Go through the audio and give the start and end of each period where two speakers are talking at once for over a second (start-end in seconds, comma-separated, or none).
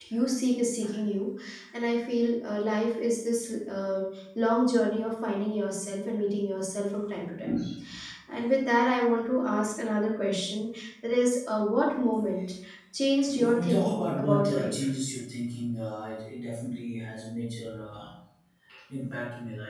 13.3-14.9